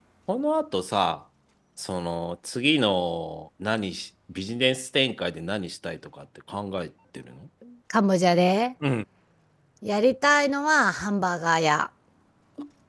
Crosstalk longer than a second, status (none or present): none